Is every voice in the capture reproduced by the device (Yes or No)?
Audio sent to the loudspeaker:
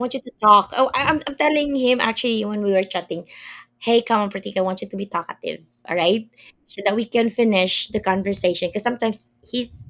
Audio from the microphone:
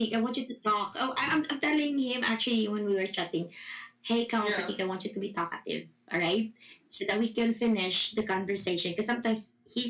No